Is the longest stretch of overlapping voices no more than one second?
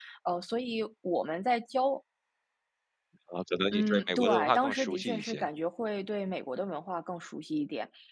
No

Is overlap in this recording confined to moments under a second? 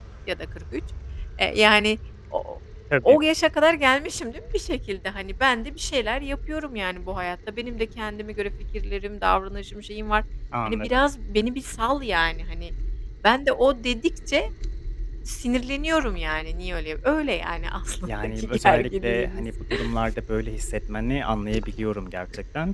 No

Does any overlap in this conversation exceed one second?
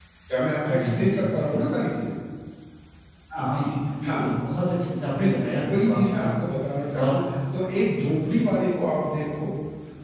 Yes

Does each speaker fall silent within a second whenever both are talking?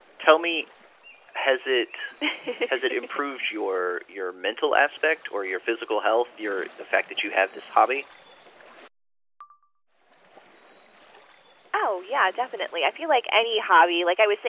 Yes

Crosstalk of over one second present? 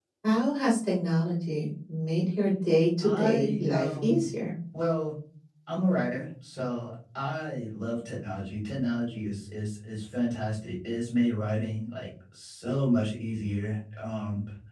Yes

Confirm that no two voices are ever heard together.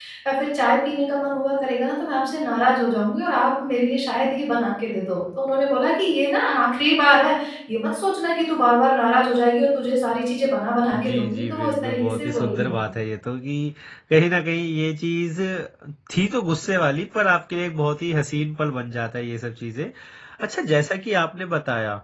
No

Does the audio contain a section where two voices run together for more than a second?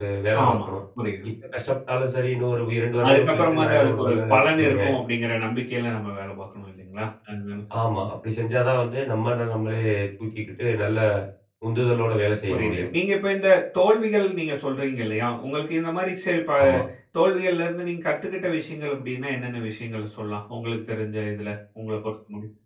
Yes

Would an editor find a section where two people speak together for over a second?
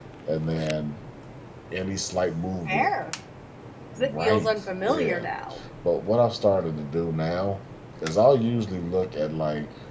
Yes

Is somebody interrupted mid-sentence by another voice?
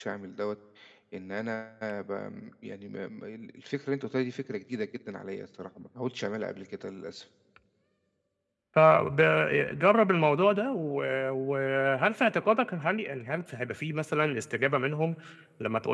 No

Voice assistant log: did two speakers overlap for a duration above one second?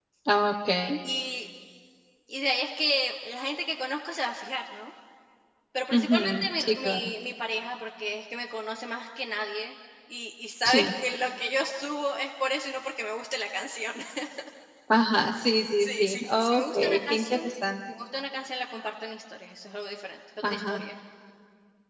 Yes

